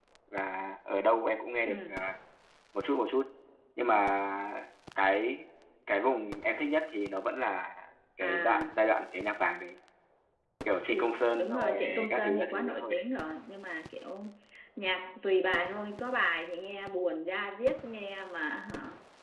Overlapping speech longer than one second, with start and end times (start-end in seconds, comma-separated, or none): 10.9-13.1